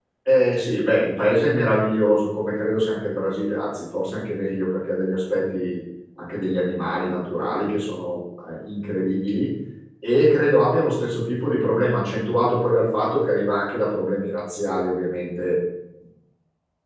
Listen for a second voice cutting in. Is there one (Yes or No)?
No